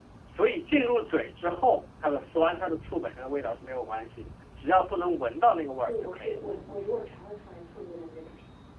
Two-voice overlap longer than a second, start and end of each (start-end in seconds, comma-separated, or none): none